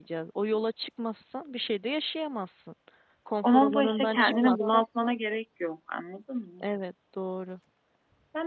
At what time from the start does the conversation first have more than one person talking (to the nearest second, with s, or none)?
3 s